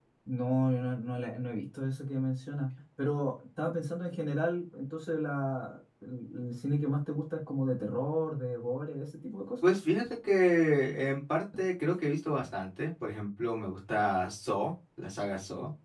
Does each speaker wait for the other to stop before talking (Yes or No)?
Yes